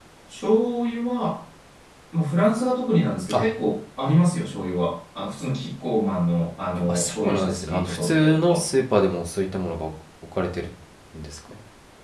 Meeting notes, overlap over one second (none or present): present